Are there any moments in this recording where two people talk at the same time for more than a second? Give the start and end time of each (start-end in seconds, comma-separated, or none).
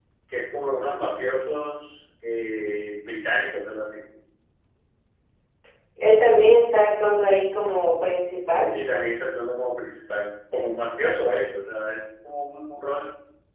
none